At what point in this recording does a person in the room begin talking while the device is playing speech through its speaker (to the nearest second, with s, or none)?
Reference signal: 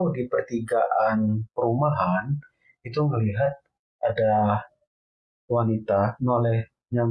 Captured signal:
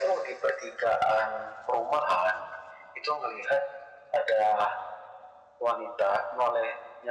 none